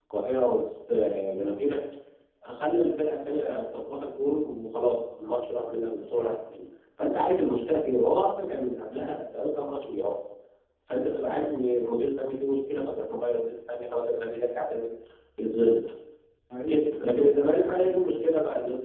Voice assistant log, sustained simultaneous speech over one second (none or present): present